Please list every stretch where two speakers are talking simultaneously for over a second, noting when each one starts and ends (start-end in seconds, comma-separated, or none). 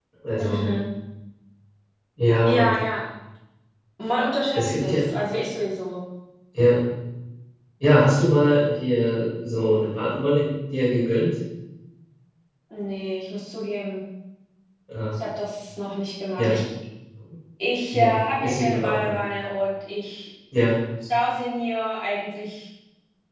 17.9-19.2